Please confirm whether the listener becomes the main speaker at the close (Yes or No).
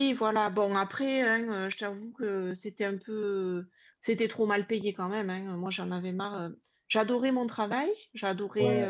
No